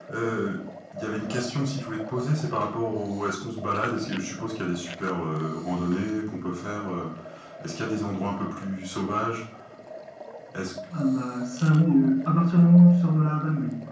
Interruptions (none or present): none